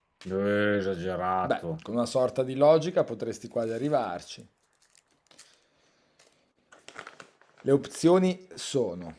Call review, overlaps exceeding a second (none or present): none